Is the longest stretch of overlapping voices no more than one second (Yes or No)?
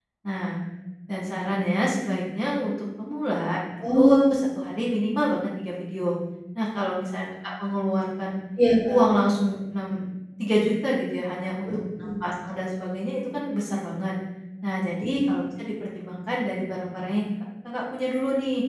Yes